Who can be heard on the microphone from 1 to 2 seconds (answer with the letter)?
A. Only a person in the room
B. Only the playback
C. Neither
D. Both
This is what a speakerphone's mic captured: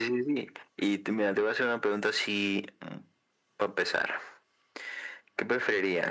B